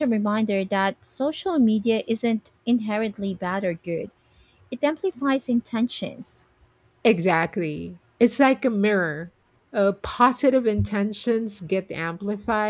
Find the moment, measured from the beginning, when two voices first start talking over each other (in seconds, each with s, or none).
none